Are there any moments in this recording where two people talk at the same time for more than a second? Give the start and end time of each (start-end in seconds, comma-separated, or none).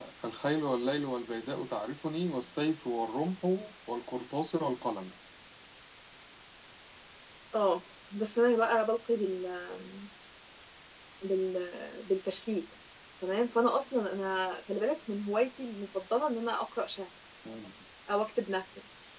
none